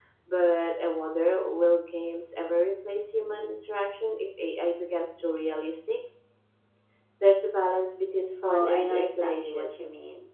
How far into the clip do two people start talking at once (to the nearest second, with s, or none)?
8 s